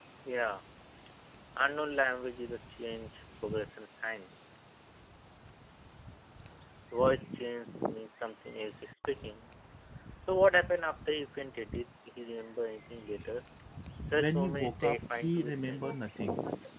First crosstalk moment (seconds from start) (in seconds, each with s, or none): 14.1 s